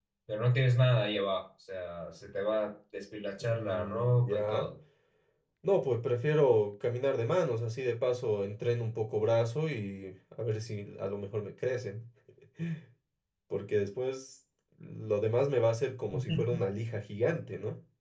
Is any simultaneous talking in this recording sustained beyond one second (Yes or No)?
Yes